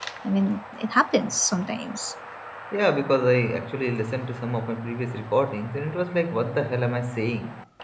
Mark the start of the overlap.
none

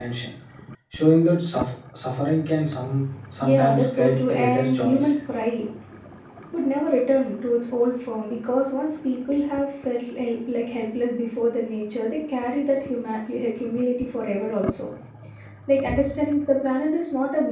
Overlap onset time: 3.4 s

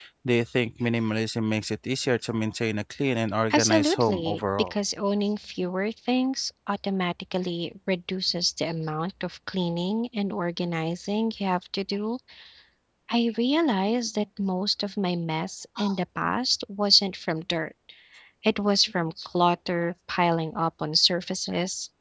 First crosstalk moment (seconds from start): 3.5 s

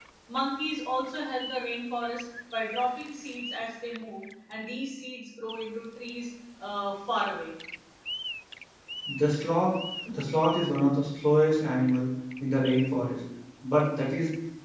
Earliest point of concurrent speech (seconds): none

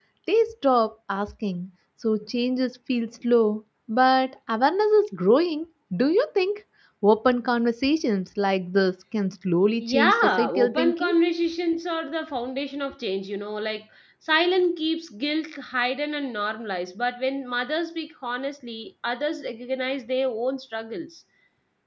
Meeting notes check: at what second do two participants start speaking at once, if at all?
9.8 s

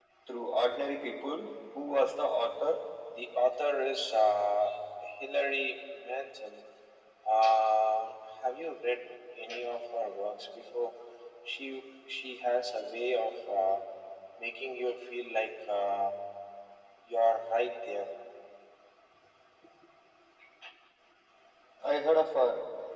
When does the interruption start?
none

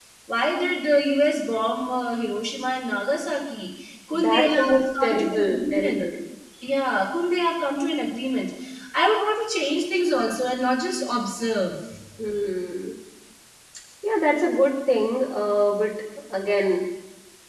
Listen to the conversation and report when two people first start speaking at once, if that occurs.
4.1 s

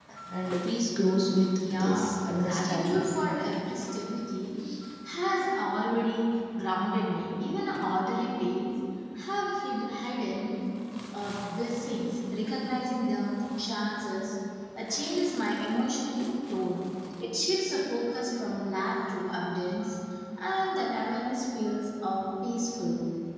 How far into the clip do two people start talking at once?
1.6 s

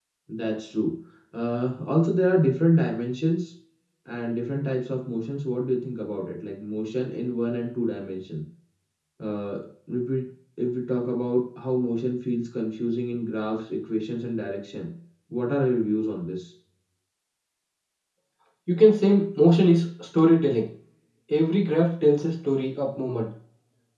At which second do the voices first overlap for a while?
none

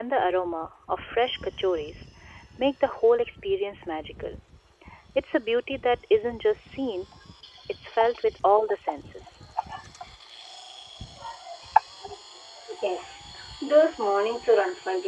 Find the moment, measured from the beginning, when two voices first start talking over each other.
none

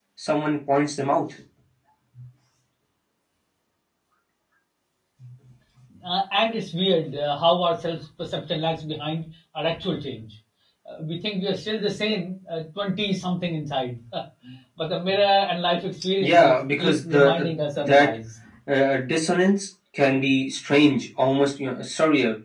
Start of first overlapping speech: 16.2 s

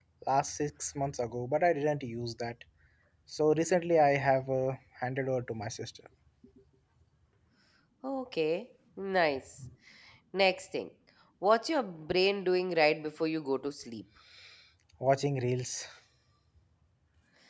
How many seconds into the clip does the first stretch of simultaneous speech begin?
none

